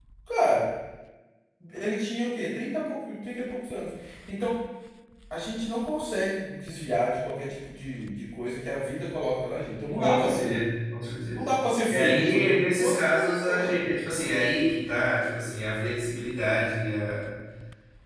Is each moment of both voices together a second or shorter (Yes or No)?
No